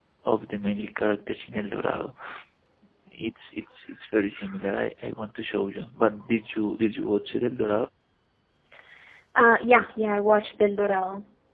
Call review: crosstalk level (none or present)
none